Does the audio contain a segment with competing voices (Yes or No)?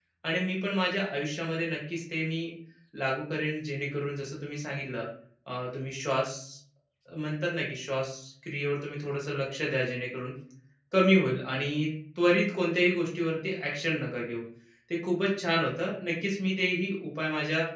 No